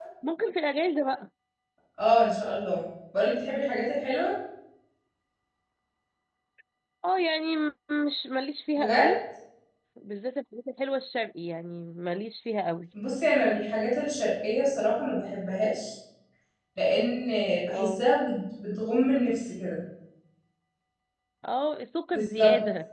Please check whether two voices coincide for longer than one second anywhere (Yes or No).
No